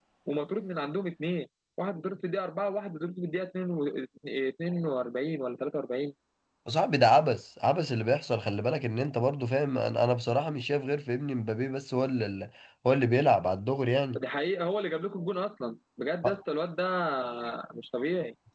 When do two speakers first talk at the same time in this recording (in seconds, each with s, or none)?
none